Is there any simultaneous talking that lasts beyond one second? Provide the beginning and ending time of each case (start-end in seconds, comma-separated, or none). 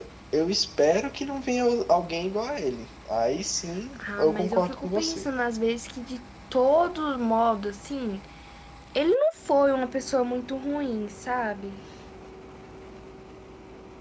4.0-5.3